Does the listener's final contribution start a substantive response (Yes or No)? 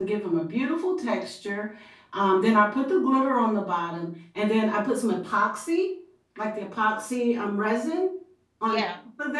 No